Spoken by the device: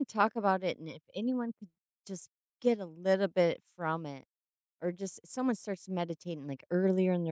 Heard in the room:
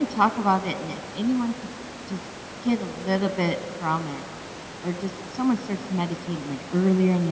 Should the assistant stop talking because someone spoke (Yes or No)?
No